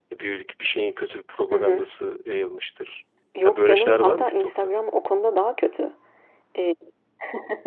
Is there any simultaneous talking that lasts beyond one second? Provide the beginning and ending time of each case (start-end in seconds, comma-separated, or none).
3.4-4.7